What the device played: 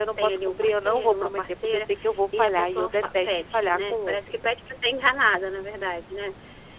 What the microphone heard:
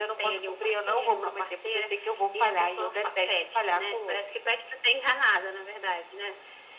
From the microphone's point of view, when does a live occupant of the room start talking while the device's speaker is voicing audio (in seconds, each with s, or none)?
none